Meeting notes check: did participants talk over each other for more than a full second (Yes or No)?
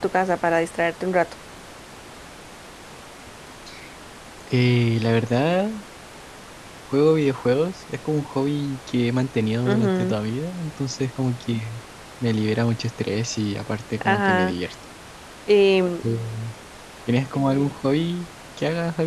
No